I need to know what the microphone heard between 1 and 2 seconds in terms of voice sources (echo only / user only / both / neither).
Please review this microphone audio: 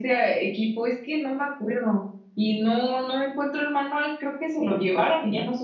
echo only